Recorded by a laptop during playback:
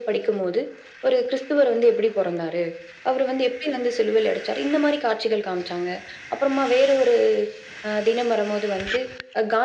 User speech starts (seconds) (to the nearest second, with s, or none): none